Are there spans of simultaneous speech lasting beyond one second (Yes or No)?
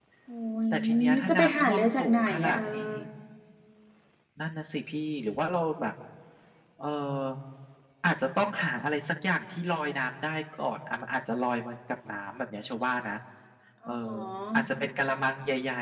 Yes